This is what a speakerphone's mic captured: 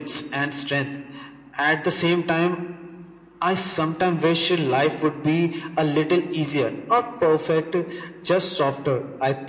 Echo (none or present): present